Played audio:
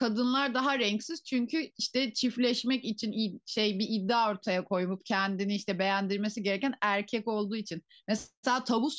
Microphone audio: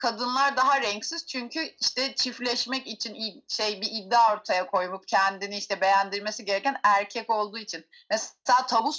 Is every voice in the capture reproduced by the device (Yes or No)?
Yes